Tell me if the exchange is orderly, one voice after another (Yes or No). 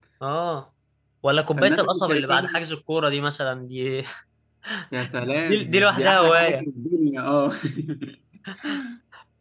No